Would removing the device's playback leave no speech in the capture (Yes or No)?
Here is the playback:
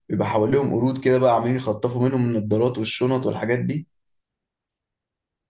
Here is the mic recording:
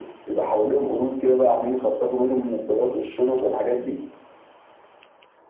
Yes